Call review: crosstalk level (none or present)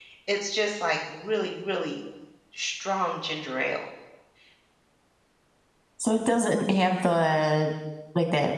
none